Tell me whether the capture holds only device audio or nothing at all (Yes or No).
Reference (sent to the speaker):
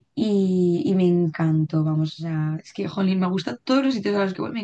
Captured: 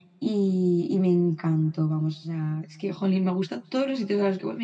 Yes